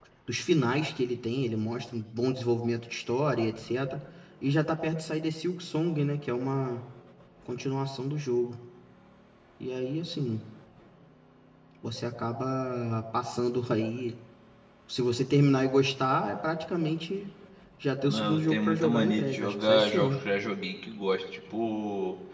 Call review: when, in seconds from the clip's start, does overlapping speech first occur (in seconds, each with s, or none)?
18.1 s